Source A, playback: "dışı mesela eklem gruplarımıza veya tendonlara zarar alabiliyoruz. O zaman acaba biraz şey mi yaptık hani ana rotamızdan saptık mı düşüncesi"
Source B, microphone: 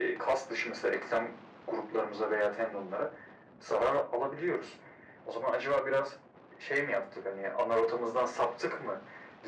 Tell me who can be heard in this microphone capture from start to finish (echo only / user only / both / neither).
echo only